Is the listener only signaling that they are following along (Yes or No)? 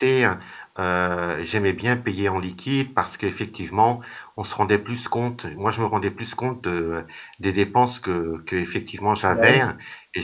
Yes